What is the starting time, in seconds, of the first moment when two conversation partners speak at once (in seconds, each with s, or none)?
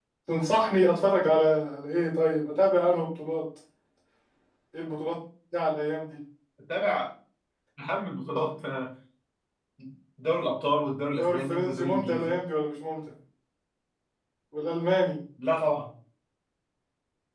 11.2 s